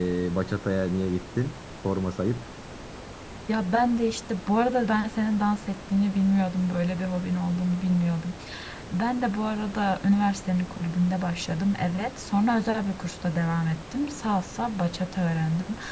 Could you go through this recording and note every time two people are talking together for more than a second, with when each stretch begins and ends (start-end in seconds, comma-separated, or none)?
none